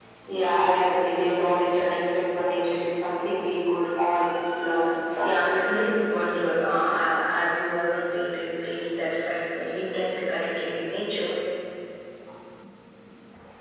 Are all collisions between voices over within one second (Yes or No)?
Yes